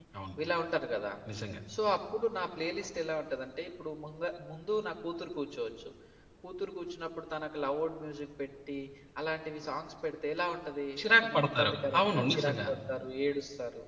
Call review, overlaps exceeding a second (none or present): present